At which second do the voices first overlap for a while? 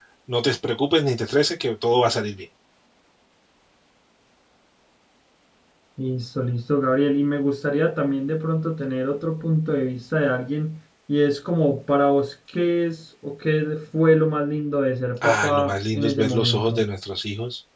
15.2 s

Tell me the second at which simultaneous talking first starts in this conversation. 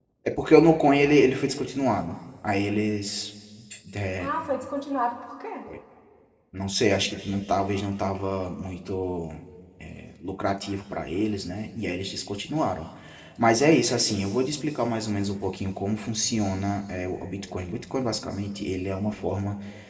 none

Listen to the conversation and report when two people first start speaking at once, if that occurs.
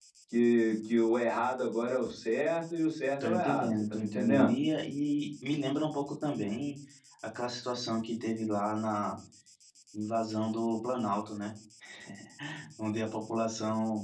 3.2 s

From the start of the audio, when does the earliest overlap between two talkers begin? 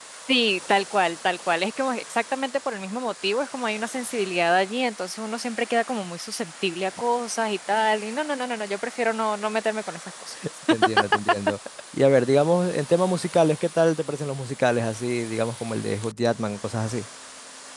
none

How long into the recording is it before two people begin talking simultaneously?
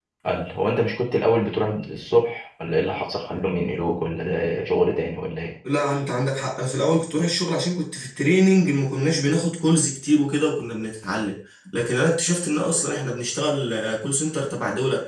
none

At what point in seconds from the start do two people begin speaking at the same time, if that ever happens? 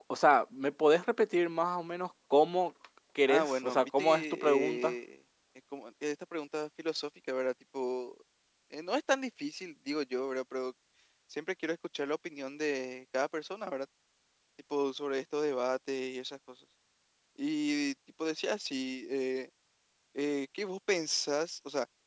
3.3 s

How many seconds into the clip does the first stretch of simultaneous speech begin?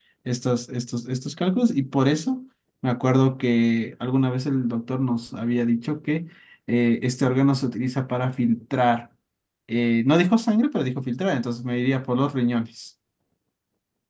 none

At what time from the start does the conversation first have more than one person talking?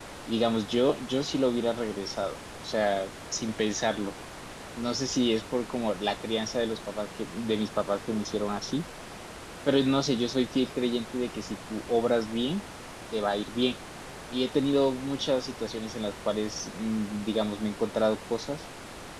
none

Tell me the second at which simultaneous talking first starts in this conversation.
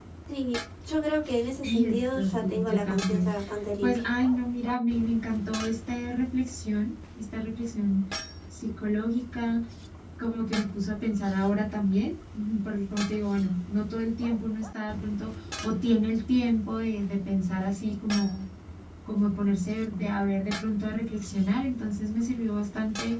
1.6 s

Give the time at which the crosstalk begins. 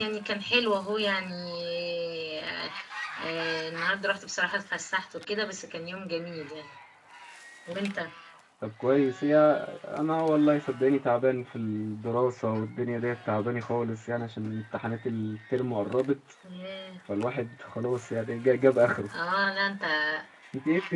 none

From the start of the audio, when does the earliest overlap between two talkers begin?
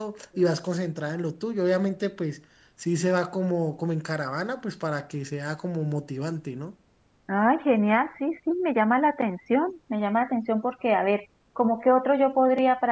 none

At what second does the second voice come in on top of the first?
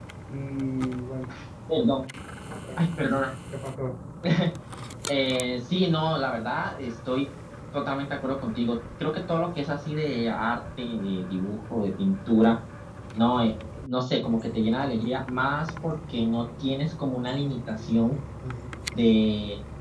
none

